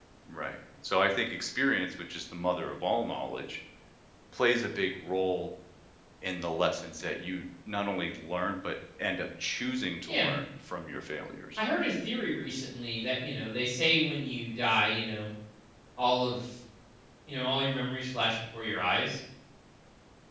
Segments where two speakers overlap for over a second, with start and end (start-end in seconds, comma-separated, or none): none